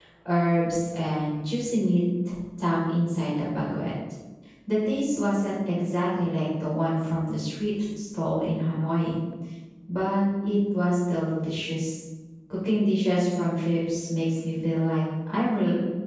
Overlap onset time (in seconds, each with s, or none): none